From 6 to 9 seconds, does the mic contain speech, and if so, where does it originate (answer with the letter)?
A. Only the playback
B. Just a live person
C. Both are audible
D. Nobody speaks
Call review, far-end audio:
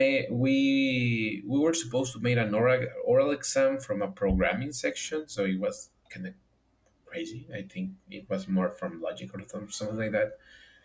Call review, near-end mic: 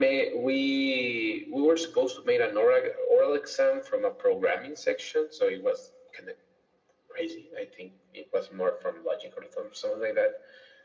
A